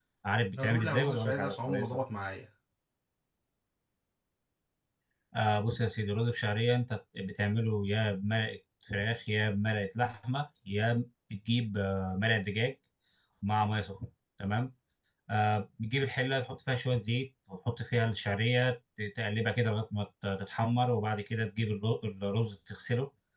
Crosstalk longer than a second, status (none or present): present